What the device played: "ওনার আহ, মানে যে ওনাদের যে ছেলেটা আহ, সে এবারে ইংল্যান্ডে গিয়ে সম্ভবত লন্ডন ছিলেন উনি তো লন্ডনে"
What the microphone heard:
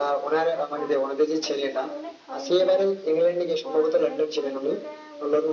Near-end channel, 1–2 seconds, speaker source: both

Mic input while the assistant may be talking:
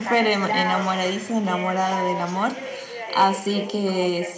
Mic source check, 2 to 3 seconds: both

